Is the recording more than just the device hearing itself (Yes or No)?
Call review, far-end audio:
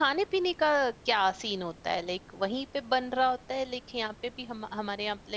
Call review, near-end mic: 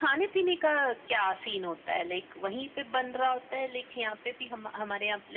No